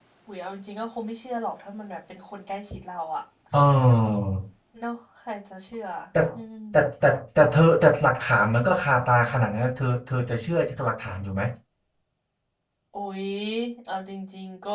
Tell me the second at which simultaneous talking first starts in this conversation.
none

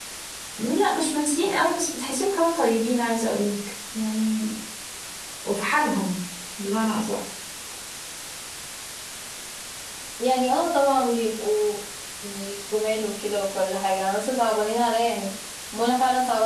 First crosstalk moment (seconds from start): none

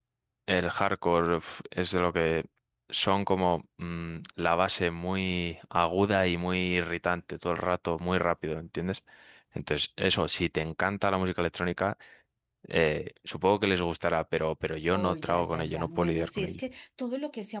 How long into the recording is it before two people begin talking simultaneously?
14.9 s

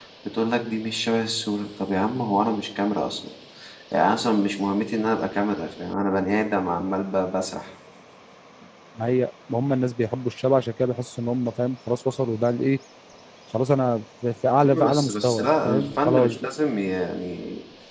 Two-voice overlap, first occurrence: 14.6 s

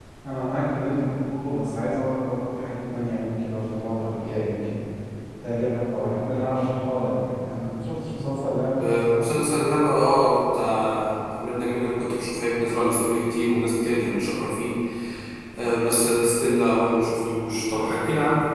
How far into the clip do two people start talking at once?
none

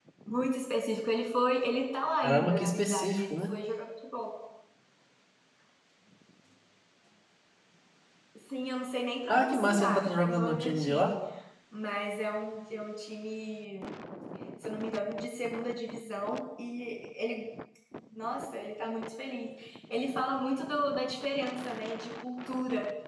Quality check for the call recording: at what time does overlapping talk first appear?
2.2 s

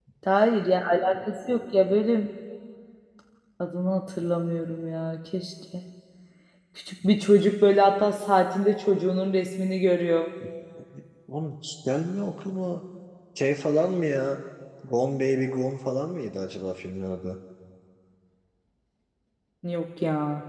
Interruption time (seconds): none

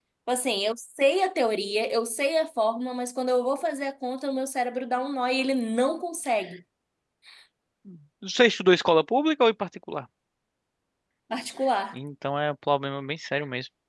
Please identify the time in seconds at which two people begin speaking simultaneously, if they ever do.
none

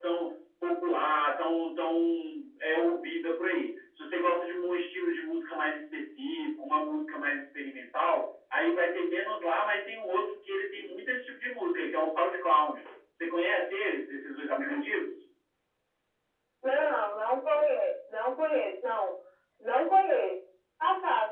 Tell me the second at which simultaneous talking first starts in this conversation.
none

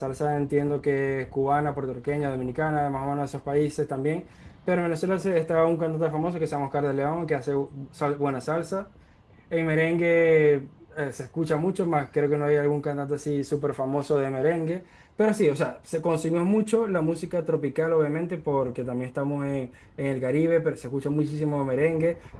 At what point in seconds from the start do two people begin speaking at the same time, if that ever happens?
none

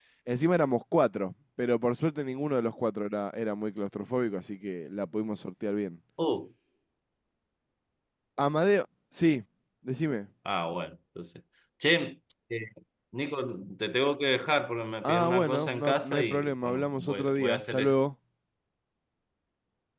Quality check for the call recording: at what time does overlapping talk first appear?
15.0 s

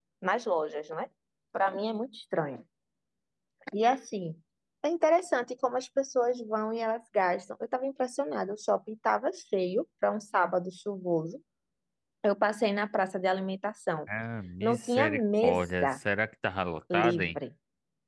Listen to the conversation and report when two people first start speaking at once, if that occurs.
14.6 s

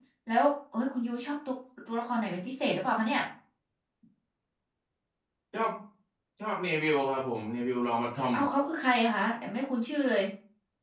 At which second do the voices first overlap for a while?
none

